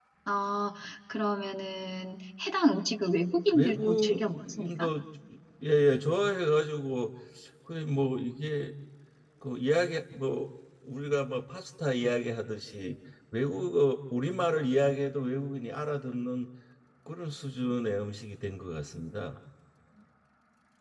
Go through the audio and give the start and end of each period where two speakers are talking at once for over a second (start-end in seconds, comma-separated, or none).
3.5-4.9